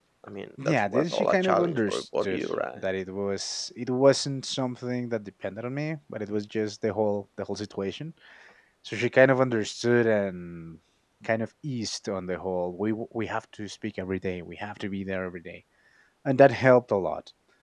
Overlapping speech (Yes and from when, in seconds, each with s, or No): Yes, from 0.6 s